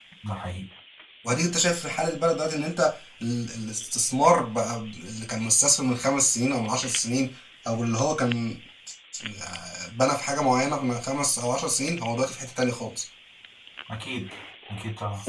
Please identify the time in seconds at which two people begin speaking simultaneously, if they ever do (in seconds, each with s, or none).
none